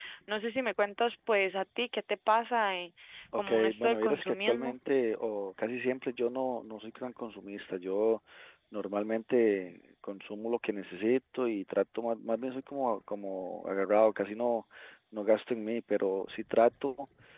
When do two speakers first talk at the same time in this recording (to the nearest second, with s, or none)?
3 s